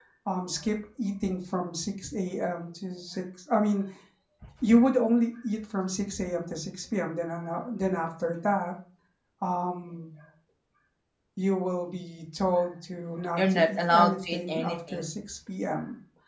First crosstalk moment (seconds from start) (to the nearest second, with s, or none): 13 s